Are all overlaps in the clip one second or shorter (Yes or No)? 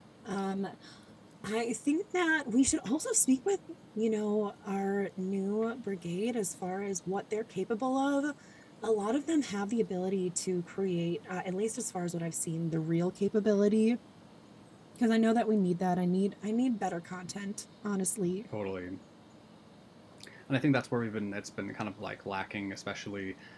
Yes